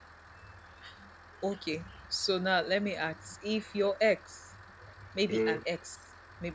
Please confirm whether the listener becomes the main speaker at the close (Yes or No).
No